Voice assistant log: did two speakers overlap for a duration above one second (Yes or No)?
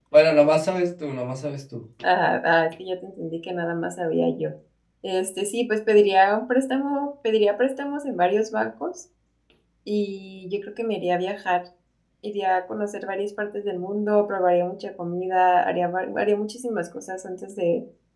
No